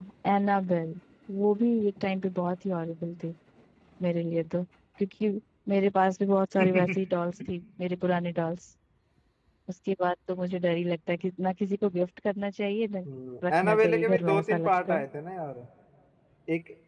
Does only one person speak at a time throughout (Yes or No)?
No